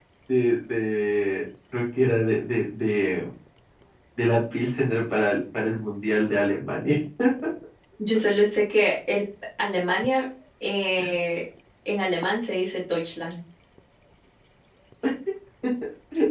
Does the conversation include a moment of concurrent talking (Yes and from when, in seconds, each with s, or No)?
No